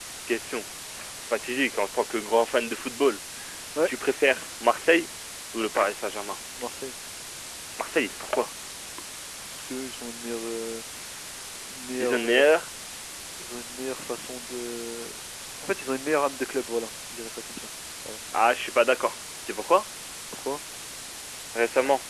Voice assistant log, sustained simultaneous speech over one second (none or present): none